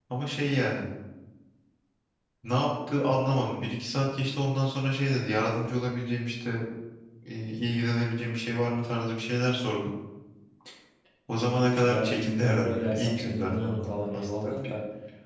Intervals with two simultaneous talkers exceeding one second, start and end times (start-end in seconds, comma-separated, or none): 11.3-14.5